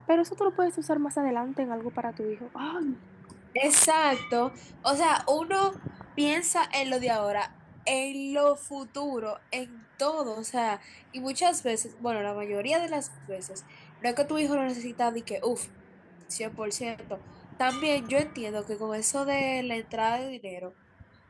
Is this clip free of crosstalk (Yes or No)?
Yes